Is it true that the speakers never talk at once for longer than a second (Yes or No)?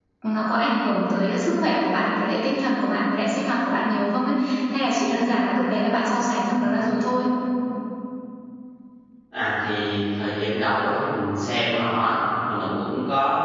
Yes